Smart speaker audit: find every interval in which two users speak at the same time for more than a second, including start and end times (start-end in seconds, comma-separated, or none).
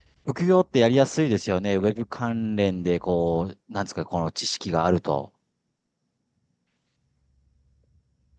none